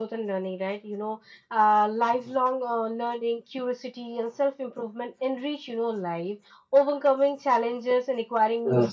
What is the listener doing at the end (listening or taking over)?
listening